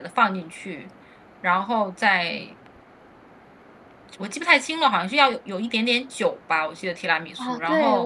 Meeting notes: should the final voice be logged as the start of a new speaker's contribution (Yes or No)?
Yes